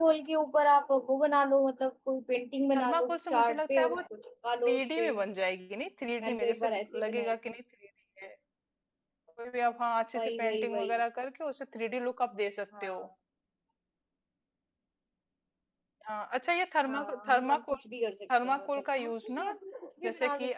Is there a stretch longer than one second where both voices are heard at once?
Yes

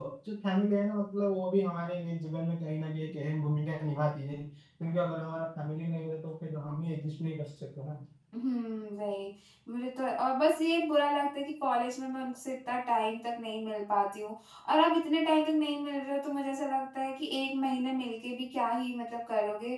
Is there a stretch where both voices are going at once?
No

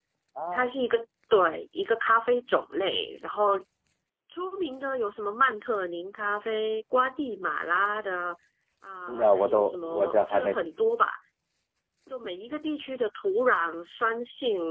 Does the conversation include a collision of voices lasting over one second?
Yes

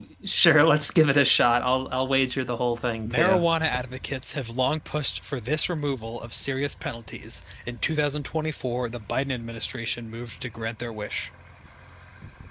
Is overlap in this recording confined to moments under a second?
Yes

